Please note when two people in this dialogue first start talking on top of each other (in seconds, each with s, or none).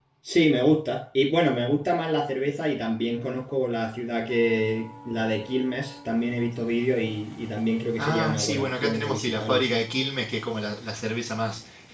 8.0 s